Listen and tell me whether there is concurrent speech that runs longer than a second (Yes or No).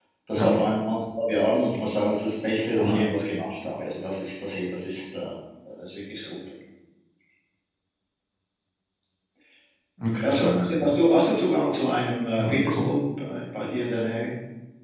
No